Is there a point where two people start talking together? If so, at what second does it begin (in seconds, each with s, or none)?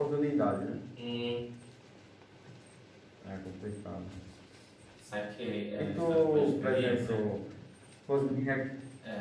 5.7 s